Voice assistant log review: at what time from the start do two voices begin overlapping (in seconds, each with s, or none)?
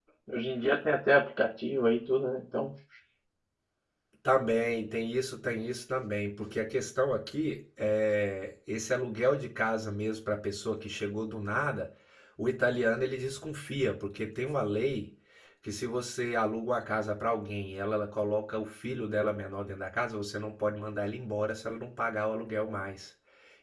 none